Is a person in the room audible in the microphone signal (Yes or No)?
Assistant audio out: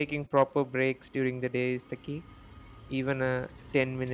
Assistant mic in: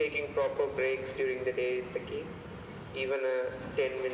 No